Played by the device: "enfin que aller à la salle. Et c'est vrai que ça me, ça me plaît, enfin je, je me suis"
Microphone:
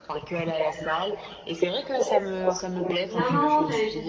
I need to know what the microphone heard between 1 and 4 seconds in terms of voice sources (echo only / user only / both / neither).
both